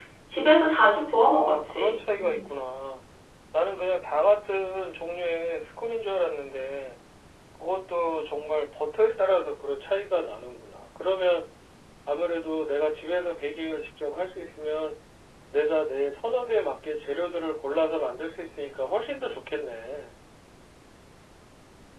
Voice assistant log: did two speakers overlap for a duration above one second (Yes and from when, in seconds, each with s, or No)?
Yes, from 1.2 s